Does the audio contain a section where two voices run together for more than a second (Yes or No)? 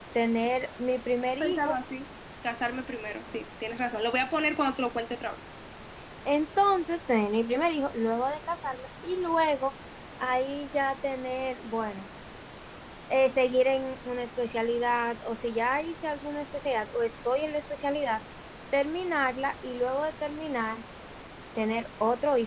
No